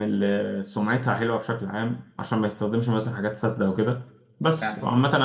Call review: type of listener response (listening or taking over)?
listening